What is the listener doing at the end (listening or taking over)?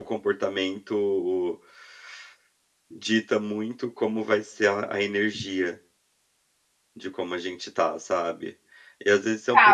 taking over